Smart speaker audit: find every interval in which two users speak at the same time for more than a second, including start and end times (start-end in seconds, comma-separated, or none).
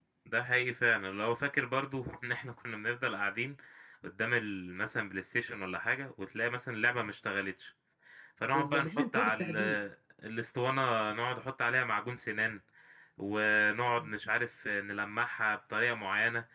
8.5-9.8